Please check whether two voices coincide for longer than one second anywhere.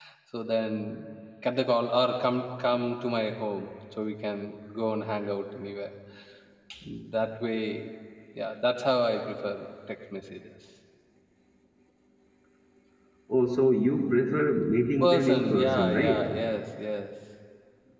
Yes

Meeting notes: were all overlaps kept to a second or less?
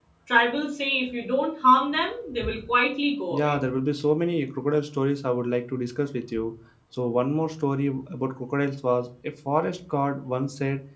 Yes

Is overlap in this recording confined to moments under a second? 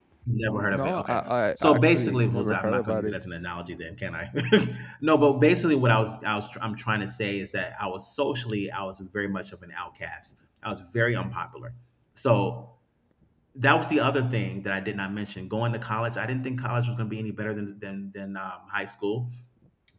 No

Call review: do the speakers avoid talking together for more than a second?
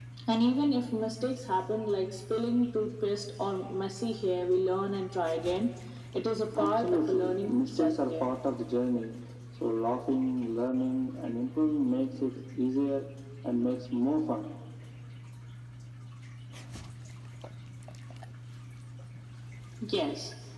No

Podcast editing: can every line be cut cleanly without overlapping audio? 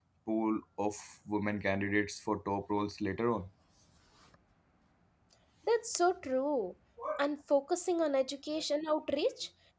Yes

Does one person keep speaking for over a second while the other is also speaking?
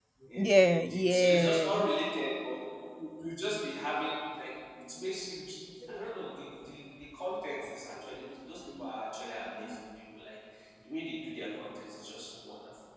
Yes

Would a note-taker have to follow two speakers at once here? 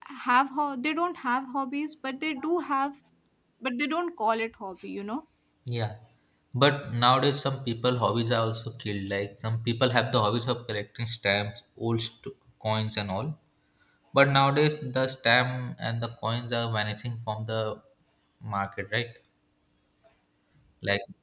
No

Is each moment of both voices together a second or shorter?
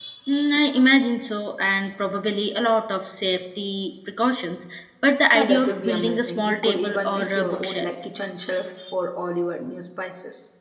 No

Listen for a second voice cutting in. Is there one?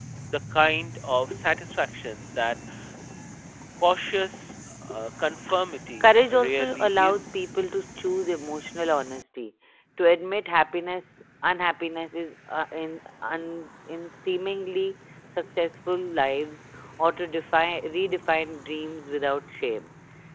Yes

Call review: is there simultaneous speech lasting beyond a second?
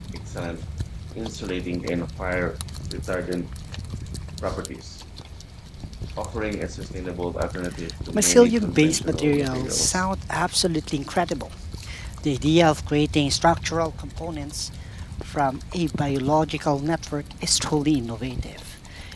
Yes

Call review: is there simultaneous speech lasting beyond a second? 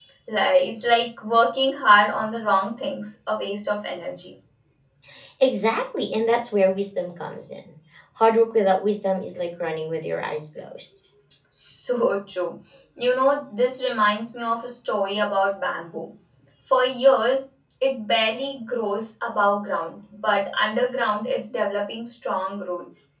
No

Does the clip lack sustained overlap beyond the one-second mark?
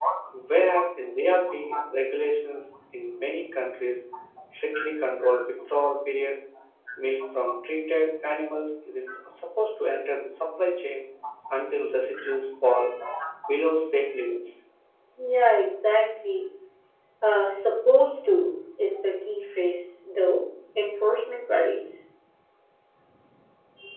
Yes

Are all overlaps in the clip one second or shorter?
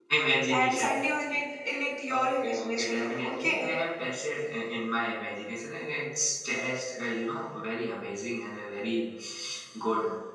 No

